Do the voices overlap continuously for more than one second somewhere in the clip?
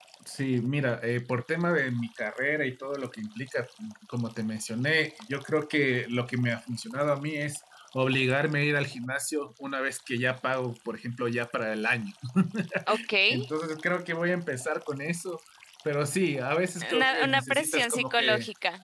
Yes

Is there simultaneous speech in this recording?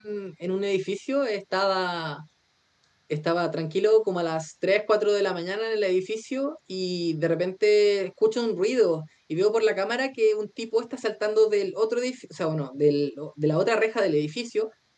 No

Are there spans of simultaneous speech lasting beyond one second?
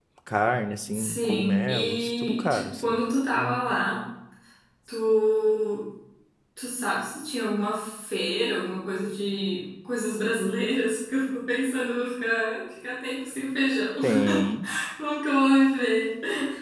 Yes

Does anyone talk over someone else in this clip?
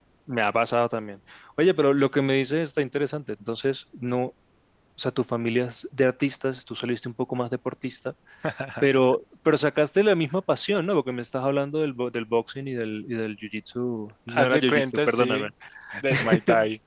Yes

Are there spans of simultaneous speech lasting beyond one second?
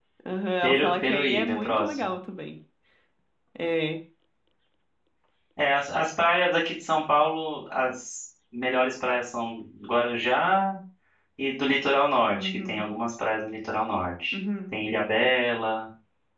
Yes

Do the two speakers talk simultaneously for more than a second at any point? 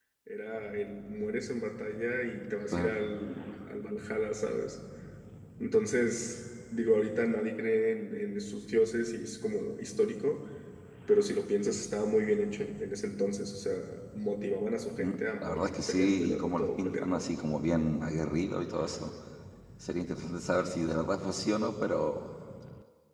Yes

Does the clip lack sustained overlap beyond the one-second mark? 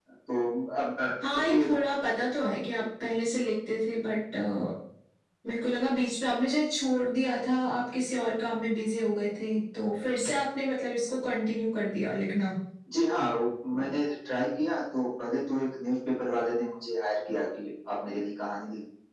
Yes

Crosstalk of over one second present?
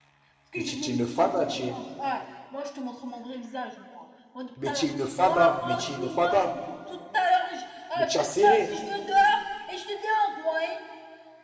Yes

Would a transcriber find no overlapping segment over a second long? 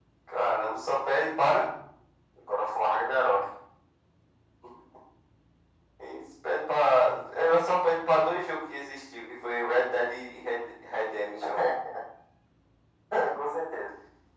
Yes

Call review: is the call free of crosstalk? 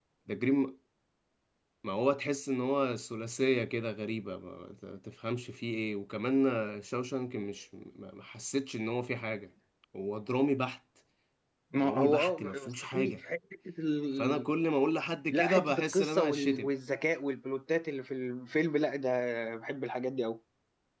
No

